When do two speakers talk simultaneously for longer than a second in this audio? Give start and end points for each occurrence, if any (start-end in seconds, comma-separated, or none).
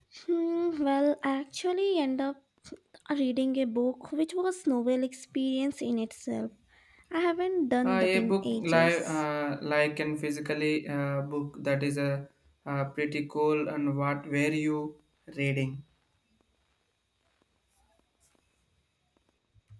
7.8-9.2